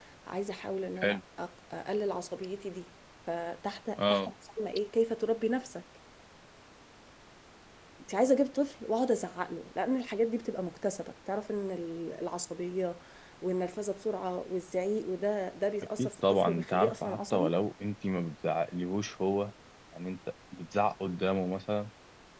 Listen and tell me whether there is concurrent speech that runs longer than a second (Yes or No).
Yes